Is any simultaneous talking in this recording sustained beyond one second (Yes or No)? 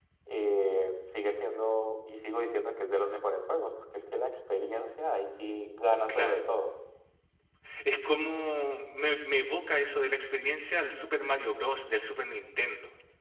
No